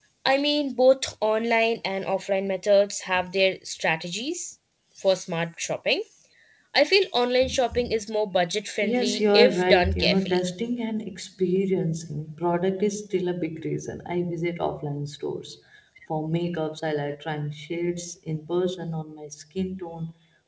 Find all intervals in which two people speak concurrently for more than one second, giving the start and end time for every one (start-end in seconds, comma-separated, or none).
8.8-10.4